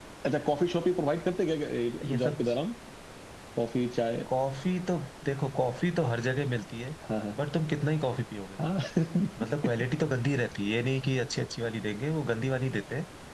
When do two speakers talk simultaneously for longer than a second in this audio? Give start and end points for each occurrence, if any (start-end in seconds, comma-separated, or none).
none